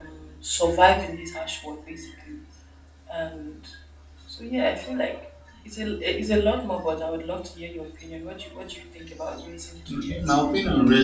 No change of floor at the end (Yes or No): No